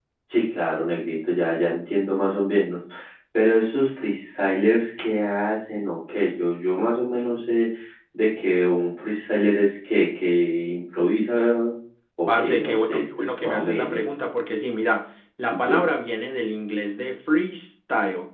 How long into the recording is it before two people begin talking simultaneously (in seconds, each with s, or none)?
12.3 s